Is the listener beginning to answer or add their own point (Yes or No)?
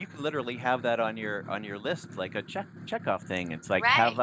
Yes